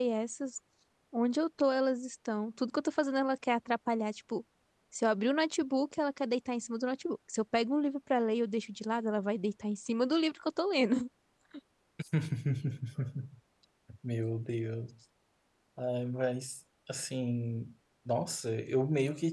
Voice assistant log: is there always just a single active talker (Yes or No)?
Yes